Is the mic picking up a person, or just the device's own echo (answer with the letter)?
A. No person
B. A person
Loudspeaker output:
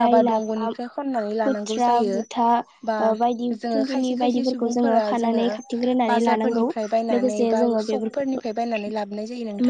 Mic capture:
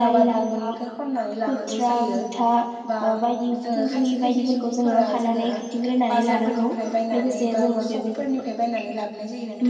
A